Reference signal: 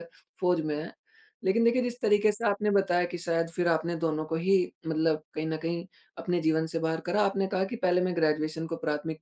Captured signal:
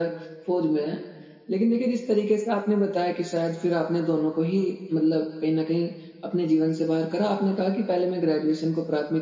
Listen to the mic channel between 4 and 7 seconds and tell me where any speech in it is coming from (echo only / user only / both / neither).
echo only